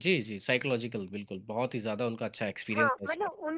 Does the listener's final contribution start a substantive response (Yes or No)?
Yes